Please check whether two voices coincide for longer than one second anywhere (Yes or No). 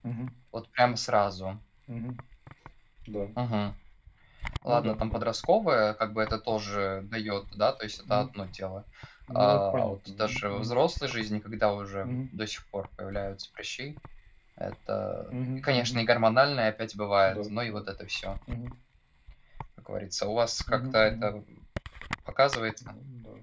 Yes